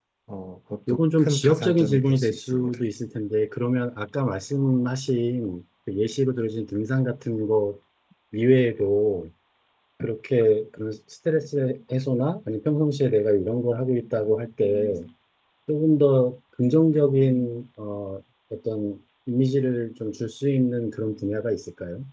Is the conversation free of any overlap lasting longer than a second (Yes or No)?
No